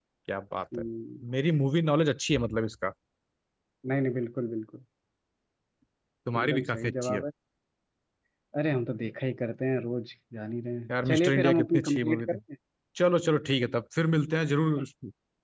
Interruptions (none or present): present